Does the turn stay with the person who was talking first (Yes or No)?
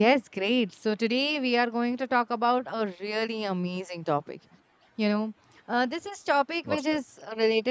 Yes